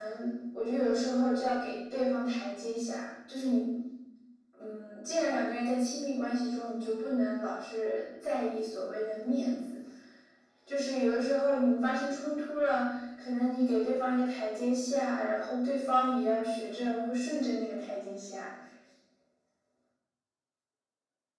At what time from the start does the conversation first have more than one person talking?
none

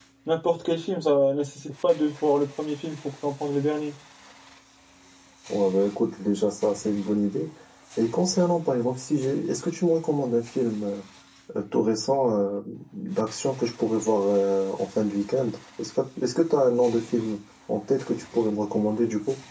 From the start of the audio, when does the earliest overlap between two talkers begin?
none

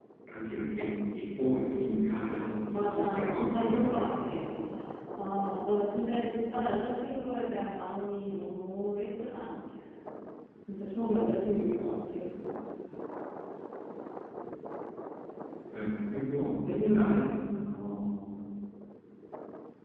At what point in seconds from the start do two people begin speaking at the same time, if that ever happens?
2.7 s

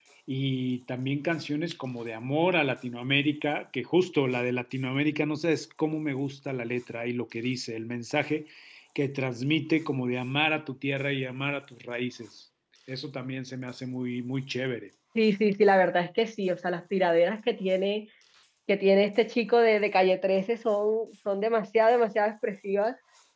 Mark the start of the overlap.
none

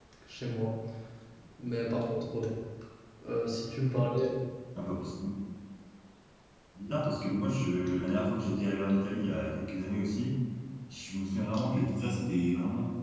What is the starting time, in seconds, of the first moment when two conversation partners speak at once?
none

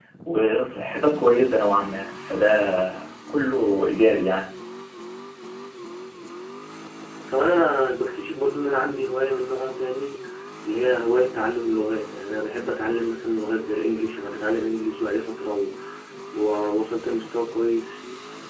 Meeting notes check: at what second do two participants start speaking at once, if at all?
none

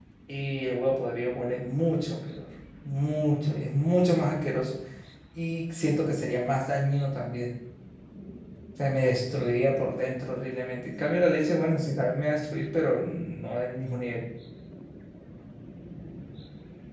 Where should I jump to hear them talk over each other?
none

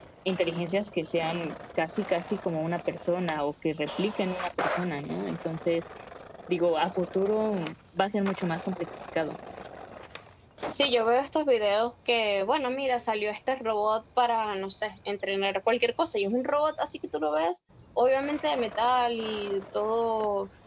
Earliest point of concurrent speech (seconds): none

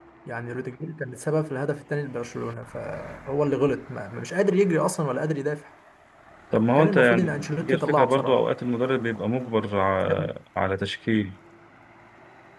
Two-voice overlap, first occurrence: 6.8 s

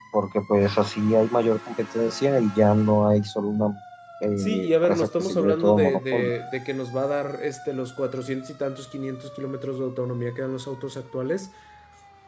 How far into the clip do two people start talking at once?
4.4 s

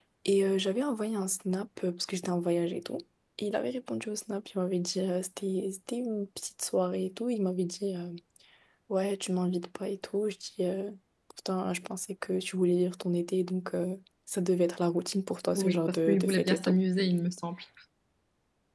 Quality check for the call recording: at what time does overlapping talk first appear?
15.5 s

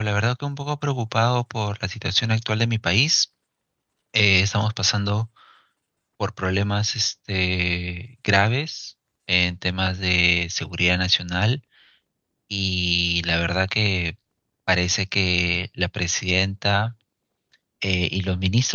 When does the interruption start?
none

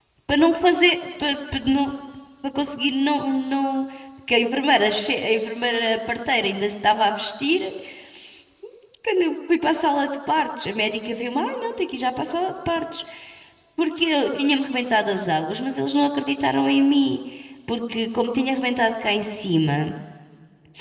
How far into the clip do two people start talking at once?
none

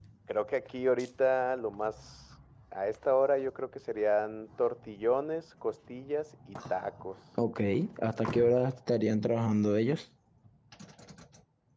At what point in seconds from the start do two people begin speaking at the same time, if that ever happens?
none

